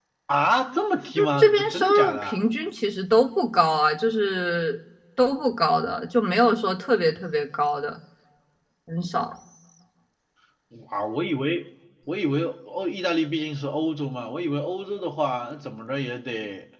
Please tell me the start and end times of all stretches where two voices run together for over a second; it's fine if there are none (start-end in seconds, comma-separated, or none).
1.2-2.4